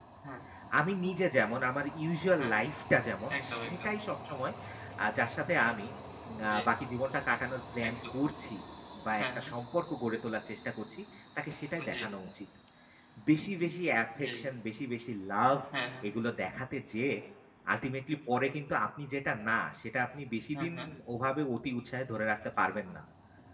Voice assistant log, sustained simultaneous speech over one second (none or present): none